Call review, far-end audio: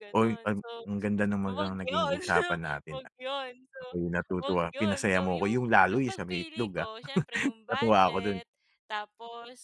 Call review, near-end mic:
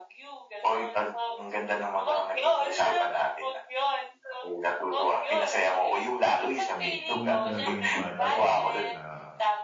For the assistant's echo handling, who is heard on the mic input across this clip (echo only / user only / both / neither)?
both